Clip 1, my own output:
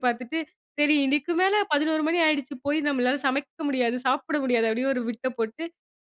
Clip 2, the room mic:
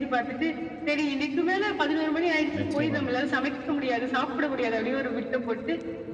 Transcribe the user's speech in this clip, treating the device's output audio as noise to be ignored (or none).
நிச்சயமா.